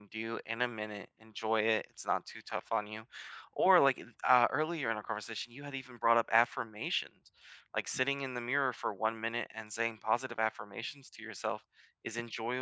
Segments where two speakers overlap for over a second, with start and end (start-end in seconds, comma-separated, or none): none